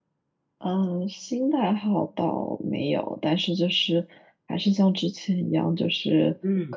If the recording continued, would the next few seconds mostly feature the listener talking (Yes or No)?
No